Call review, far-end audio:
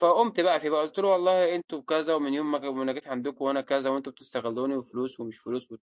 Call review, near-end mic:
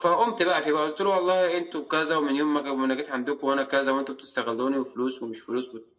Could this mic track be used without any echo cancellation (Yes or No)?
No